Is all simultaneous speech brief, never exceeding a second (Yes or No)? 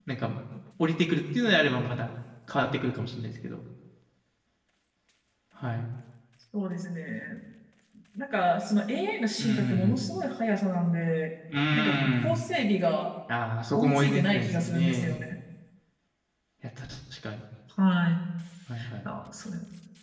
No